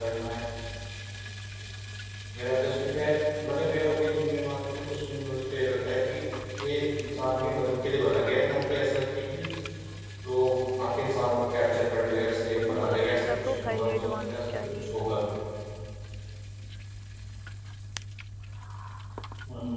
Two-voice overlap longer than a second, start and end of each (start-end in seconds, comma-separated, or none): 12.5-15.3